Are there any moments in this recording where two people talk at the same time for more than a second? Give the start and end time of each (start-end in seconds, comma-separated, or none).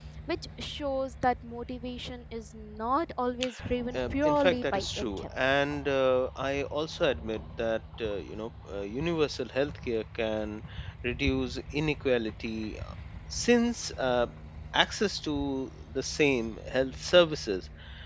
3.9-5.2